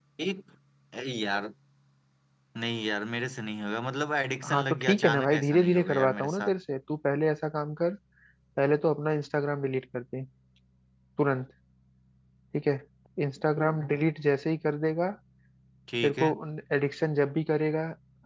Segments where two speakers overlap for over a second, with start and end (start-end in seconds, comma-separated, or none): 4.5-6.6